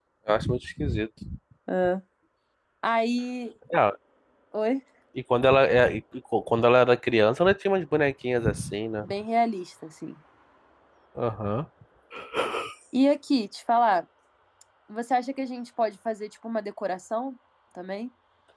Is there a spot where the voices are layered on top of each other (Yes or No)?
No